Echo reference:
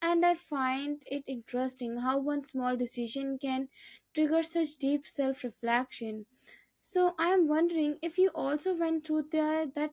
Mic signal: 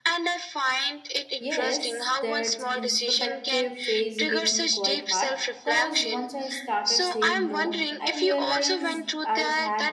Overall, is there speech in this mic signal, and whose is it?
both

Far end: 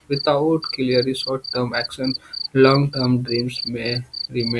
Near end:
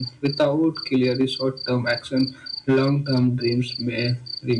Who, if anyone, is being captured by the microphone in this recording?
echo only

